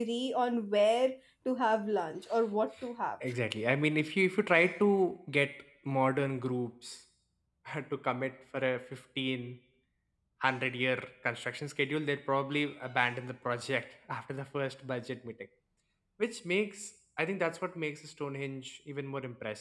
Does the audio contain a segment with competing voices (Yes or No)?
No